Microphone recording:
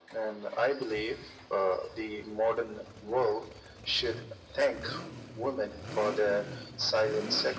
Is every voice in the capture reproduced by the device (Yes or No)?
Yes